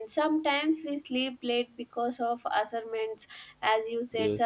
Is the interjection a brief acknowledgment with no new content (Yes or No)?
Yes